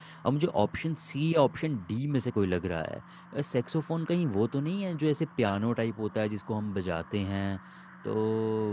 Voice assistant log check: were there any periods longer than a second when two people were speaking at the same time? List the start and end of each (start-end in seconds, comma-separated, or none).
none